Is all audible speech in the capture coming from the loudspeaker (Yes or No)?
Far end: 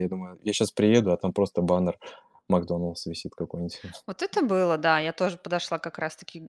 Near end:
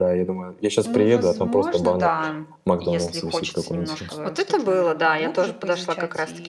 No